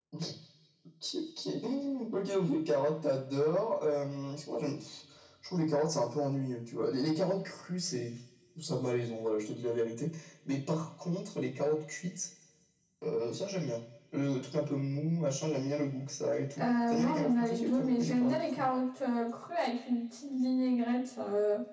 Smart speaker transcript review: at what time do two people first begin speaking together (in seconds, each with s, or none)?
16.6 s